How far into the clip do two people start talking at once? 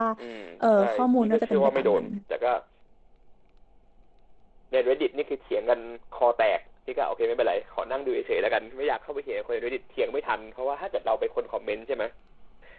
0.6 s

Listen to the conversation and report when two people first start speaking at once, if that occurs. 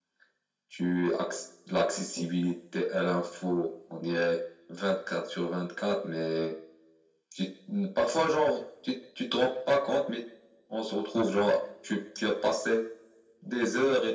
none

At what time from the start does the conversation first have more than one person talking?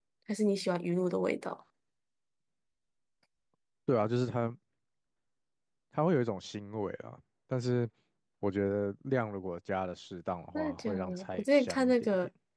10.6 s

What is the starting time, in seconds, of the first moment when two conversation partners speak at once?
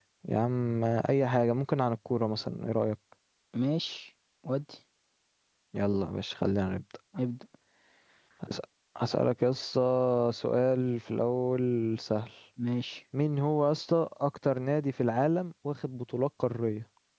none

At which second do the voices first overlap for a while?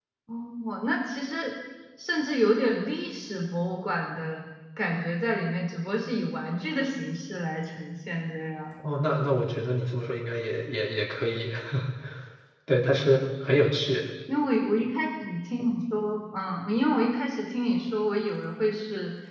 none

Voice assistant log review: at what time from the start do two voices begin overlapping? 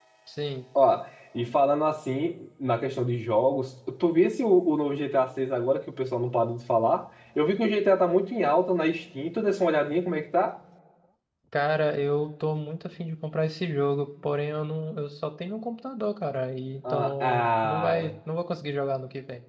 16.8 s

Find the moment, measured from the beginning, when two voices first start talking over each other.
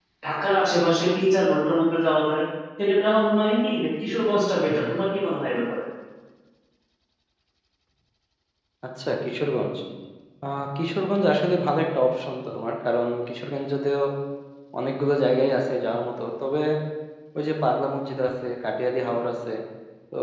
none

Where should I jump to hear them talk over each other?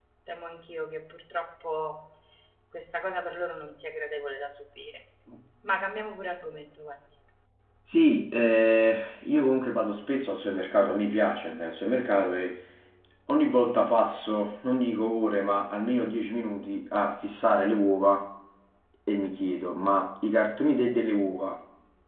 none

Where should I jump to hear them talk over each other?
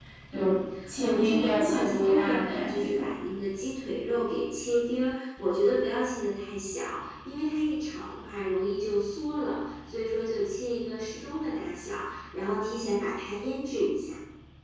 1.0 s

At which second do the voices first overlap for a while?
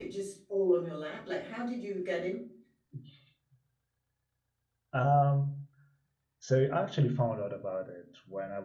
none

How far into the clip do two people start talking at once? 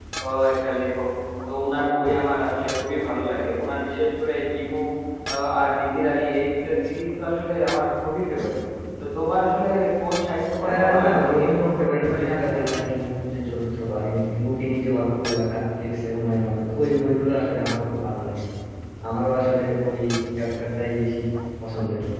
10.6 s

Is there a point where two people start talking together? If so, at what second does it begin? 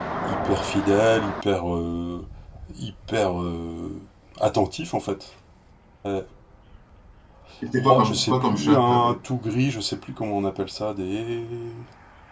7.9 s

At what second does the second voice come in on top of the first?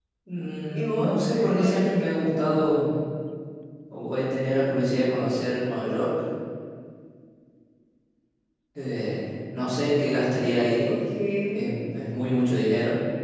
0.7 s

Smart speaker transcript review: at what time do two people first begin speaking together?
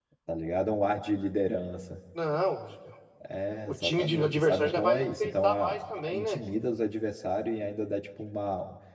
3.7 s

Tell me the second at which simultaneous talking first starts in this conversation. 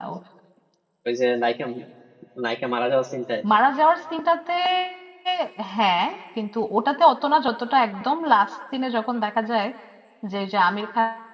none

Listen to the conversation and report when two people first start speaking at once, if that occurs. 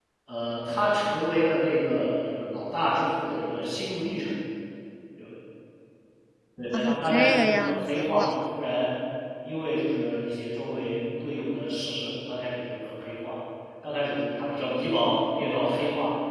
6.7 s

